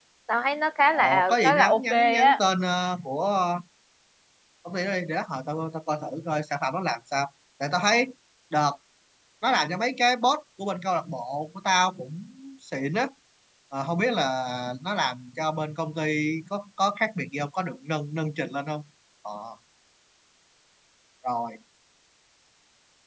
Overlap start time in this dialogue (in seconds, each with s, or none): 0.9 s